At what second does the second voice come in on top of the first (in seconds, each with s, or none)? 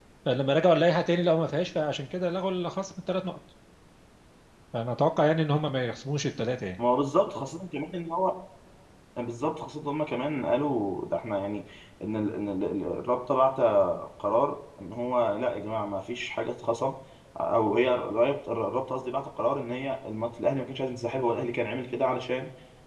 none